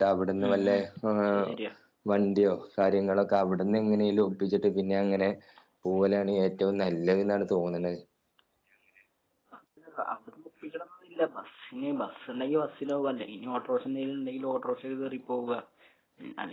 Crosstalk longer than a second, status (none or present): none